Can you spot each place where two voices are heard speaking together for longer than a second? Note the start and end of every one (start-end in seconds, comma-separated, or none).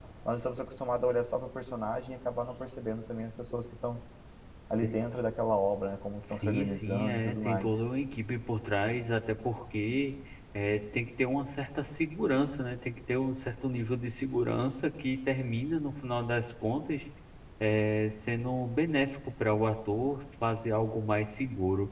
6.4-7.7